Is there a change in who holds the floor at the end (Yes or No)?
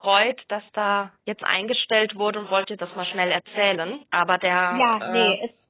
Yes